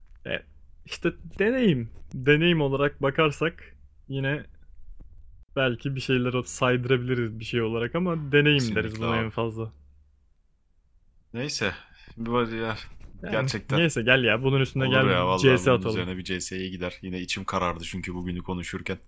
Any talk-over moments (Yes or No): Yes